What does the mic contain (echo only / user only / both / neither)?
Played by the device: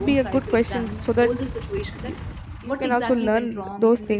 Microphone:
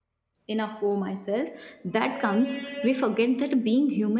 user only